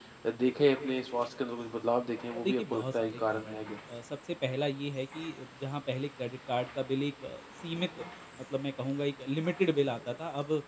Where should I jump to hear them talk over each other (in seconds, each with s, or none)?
2.3 s